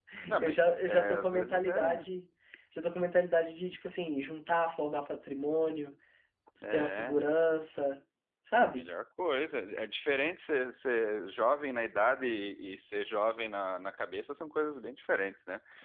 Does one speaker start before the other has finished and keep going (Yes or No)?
Yes